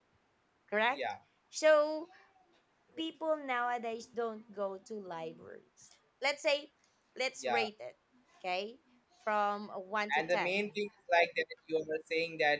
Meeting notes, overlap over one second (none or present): none